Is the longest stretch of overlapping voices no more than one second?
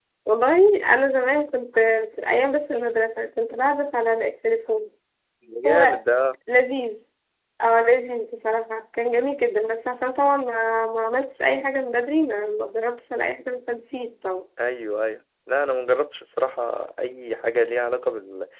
Yes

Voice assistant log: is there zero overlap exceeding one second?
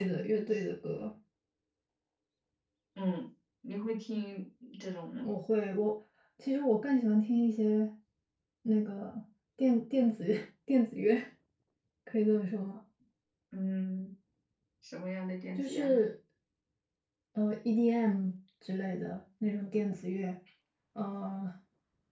Yes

